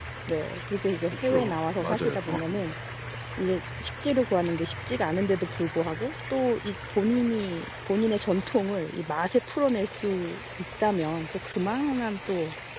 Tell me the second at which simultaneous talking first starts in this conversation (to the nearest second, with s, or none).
1 s